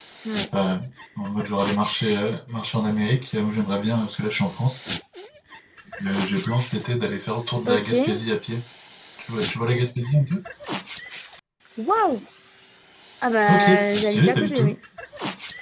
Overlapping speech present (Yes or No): Yes